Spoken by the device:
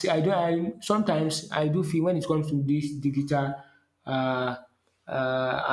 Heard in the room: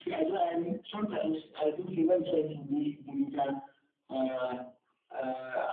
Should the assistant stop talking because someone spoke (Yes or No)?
No